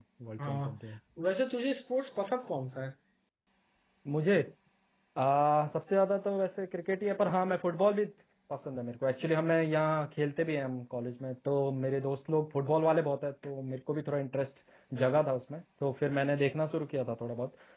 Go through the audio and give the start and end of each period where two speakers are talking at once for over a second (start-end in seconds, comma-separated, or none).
none